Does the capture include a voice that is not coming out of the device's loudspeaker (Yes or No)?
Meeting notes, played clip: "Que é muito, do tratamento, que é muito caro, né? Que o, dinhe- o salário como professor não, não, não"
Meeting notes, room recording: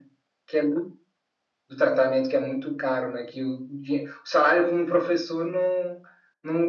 No